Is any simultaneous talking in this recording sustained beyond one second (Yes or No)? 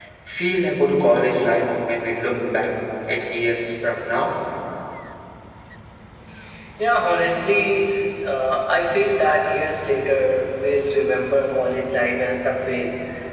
No